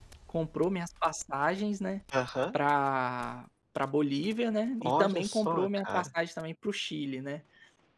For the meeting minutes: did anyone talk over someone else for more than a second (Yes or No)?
Yes